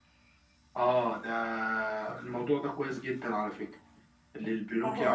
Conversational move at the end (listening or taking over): listening